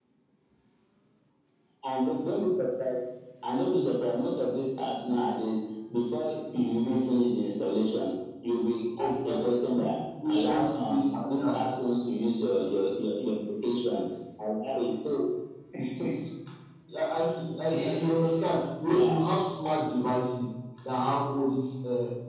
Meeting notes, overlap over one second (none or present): present